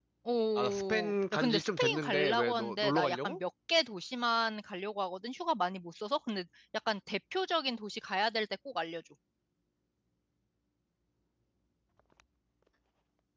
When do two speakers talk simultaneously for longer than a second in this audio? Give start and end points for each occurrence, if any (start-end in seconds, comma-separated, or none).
0.6-3.4